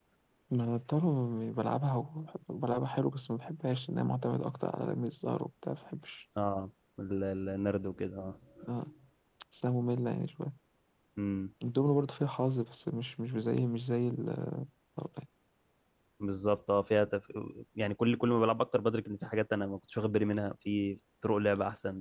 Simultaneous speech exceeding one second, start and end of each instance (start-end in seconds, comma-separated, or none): none